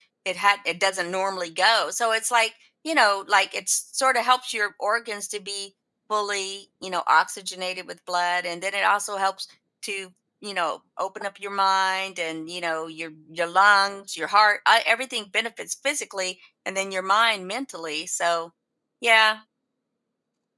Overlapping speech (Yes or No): No